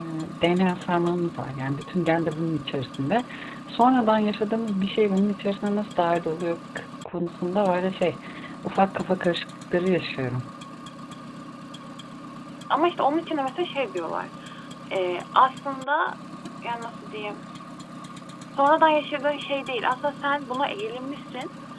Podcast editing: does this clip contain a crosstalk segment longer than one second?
No

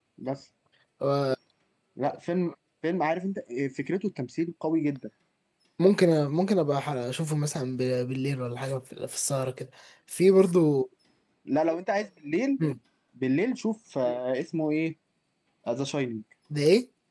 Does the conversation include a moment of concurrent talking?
No

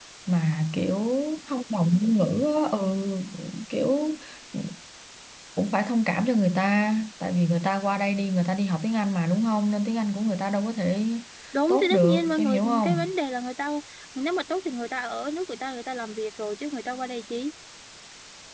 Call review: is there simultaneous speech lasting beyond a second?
Yes, from 11.7 s

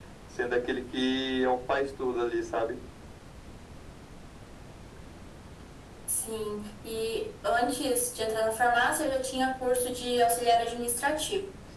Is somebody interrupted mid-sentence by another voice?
No

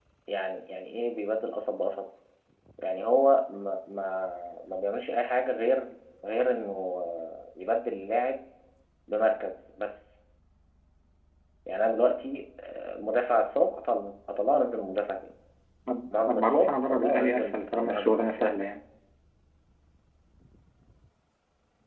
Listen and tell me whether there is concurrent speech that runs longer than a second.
Yes, from 16.2 s

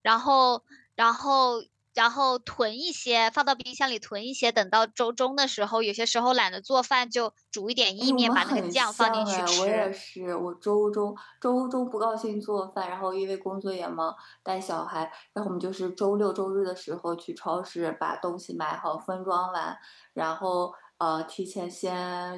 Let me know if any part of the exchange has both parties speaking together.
Yes, from 8.0 s

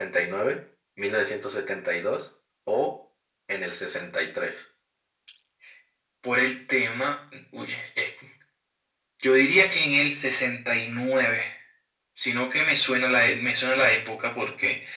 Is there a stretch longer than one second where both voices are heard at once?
No

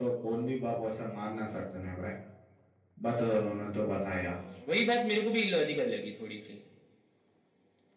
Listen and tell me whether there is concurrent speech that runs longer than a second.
No

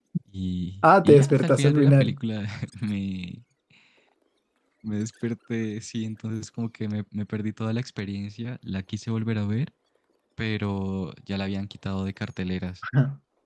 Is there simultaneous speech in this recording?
Yes, from 0.8 s

